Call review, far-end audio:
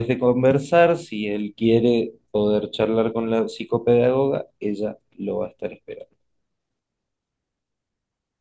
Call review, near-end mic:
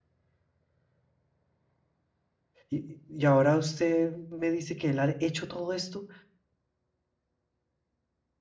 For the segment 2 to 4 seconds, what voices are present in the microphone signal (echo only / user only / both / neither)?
user only